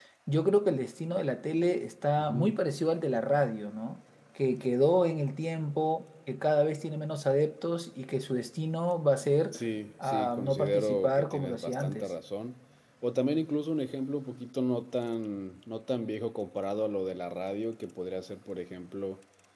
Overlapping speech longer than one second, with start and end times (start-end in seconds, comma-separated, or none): 10.0-12.1